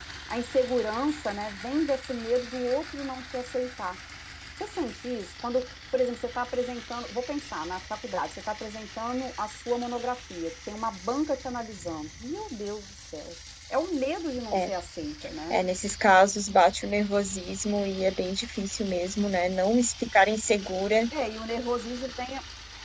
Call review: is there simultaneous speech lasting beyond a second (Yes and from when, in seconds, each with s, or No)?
No